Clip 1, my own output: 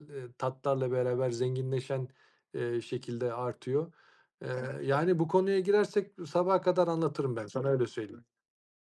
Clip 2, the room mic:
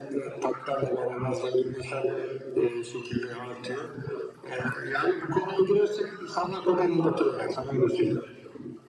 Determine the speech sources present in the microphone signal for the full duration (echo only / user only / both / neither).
echo only